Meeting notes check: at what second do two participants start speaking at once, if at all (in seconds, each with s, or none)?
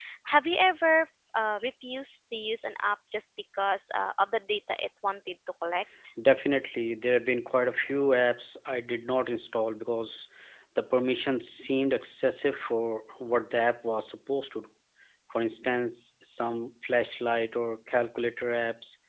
none